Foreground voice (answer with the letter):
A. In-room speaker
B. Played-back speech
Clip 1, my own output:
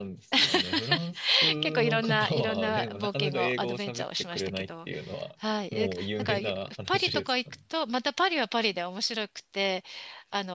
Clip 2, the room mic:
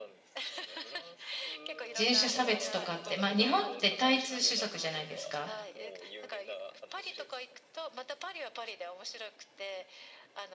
A